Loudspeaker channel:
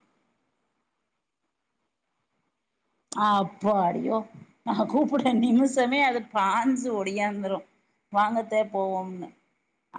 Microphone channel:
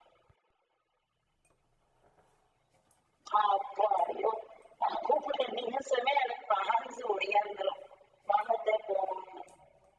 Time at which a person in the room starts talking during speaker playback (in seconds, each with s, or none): none